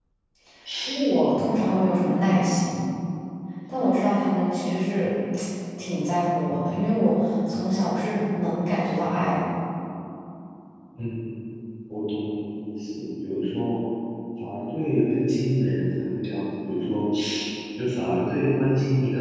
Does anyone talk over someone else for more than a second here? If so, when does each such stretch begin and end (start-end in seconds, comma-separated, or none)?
none